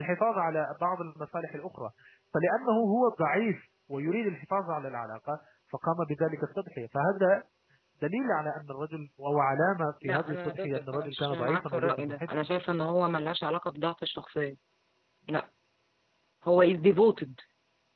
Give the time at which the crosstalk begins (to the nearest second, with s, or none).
10 s